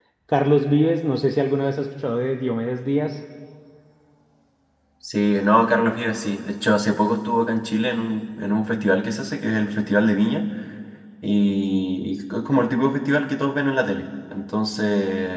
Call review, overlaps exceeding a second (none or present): none